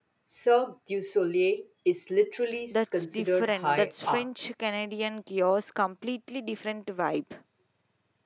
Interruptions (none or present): present